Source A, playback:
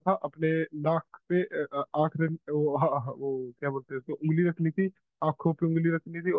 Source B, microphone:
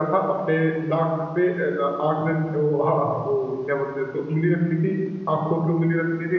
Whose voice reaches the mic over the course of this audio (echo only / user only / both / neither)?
echo only